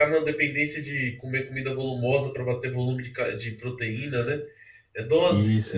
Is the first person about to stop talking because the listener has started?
Yes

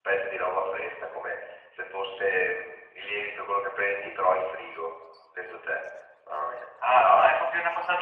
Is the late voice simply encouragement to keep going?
No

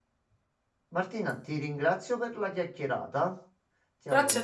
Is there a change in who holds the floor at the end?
Yes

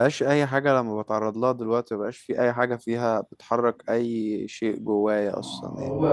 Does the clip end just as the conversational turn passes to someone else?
Yes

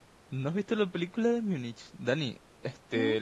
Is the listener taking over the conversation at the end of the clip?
No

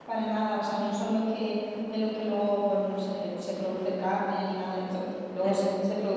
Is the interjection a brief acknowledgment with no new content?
Yes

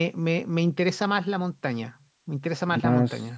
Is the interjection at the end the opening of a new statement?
Yes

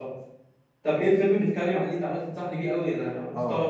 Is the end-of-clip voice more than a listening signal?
Yes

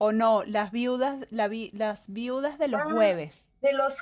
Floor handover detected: Yes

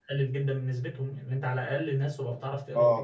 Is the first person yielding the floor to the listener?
Yes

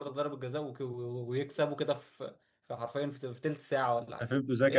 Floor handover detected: Yes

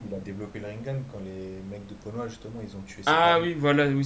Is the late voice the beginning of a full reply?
Yes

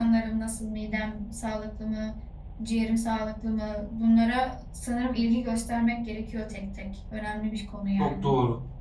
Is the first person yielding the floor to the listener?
Yes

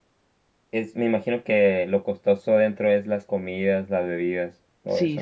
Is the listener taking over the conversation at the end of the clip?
Yes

